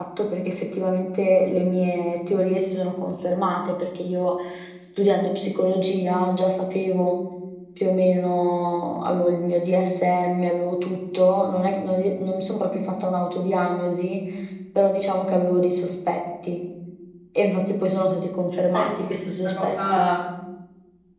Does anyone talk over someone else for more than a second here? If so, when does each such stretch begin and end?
18.7-20.1

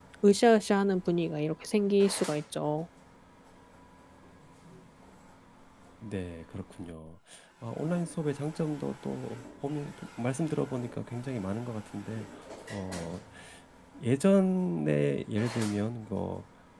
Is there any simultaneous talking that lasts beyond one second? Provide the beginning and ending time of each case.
none

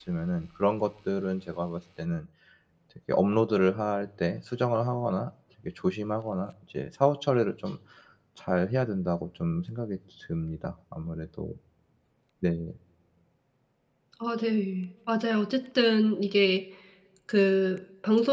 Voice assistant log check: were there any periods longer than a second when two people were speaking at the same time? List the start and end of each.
none

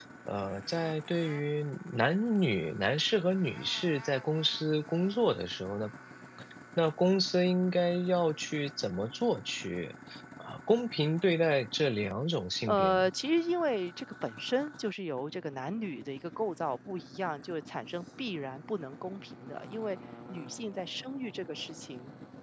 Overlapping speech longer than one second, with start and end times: none

